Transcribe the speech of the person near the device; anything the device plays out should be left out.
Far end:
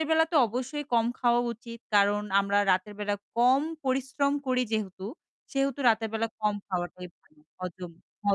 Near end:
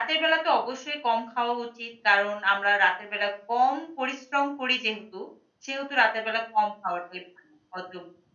none

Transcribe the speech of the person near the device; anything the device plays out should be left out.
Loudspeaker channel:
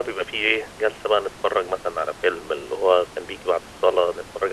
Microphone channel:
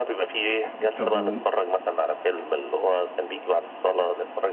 آآ، طب و

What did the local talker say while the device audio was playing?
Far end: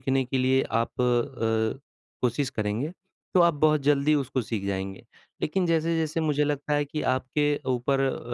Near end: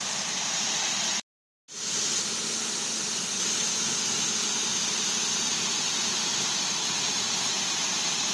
none

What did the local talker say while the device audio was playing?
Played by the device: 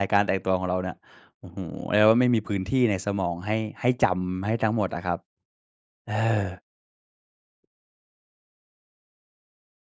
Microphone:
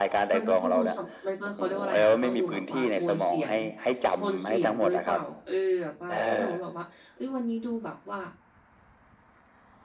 มันก็ต้องดูสำ มันก็ เขาเรียกว่าอะไรอะ มันต้องดูแบบว่าโทนเสียง โทนเสียงด้วยเปล่า เออ แบบว่า ถ้าสมมุติแบบว่า เฮ้ย วันนี้ดูแบบว่า

